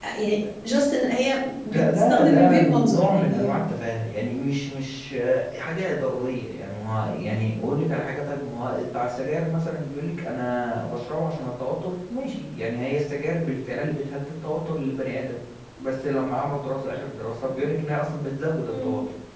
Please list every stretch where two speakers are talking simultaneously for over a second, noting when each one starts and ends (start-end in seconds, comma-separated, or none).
1.7-3.6